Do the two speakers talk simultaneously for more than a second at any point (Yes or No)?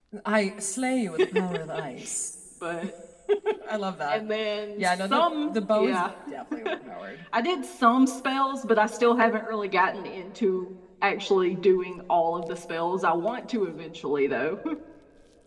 Yes